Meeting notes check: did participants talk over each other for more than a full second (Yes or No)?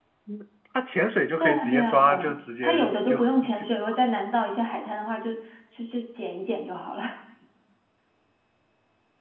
Yes